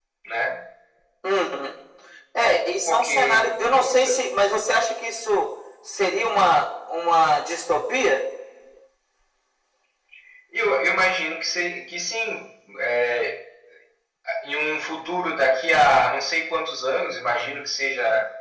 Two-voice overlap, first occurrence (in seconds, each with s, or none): 2.9 s